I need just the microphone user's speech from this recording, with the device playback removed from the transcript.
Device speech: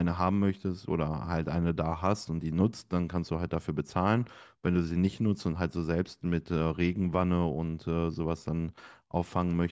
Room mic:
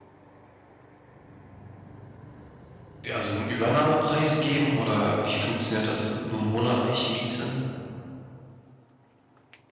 ja, also einen Übernahmepreis geben oder wie funktioniert das? Nur monatlich Miete?

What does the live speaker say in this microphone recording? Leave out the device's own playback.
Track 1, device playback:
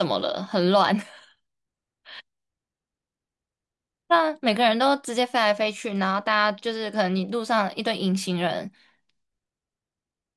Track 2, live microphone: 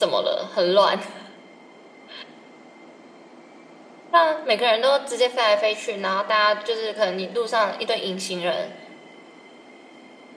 none

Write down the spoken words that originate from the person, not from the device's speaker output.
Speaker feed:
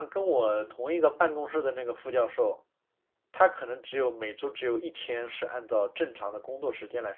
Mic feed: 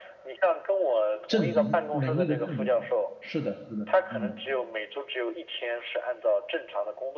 证明能力的证明，是的，是的，嗯。

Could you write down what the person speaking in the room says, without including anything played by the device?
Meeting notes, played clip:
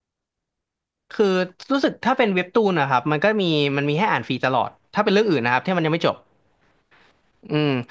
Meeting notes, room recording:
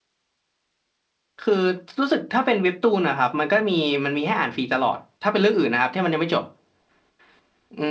none

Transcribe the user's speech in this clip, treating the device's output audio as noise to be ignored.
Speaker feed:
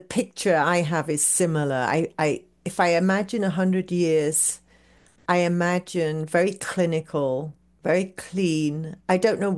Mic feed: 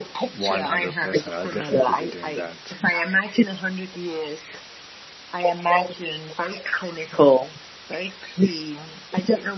100%. I'll definitely be doing that.

